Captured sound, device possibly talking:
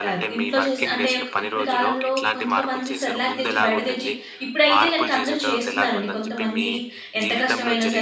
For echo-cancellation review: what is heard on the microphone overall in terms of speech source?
both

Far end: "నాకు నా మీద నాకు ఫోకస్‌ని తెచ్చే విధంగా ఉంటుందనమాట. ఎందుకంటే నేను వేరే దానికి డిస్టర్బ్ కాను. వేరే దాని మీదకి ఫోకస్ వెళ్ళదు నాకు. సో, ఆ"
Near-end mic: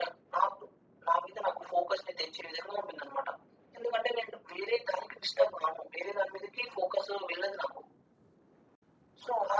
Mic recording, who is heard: echo only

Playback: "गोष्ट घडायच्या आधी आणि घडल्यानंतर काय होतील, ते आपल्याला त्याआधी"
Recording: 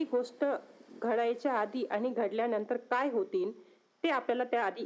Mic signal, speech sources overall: echo only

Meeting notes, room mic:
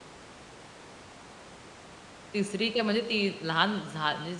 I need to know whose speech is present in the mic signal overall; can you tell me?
user only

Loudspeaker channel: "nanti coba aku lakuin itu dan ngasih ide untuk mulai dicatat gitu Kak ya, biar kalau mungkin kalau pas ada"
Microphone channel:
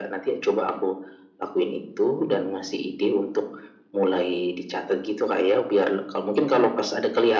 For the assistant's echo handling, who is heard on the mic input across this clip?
echo only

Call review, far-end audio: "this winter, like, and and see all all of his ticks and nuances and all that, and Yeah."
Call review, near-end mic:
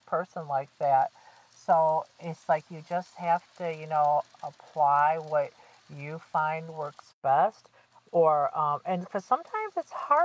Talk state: user only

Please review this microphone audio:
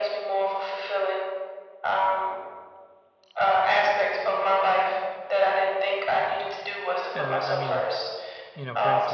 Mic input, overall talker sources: both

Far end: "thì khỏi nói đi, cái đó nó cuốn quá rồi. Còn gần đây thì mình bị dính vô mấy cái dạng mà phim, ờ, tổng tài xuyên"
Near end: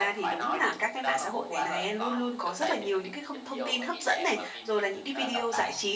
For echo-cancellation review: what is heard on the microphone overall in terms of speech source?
both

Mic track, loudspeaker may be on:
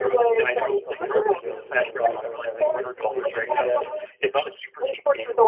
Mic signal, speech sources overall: both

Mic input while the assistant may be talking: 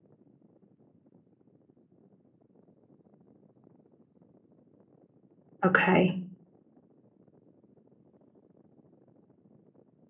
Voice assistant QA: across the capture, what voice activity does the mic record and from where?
user only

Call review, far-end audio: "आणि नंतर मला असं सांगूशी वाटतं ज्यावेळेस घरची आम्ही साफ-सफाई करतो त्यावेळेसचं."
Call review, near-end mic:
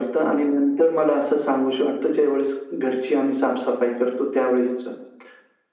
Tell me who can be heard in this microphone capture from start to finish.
echo only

